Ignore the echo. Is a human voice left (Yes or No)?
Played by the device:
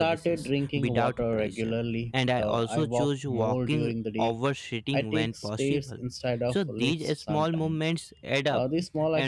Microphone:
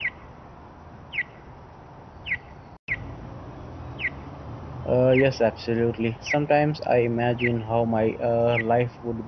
Yes